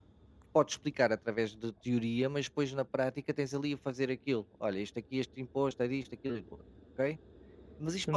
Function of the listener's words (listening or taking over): listening